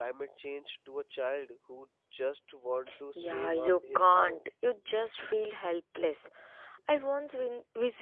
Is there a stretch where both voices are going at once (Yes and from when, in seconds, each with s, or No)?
Yes, from 3.1 s